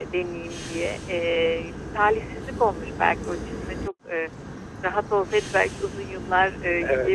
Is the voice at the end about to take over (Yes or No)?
No